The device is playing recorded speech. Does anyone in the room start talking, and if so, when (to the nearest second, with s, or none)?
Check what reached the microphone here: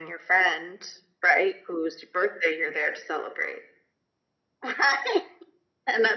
none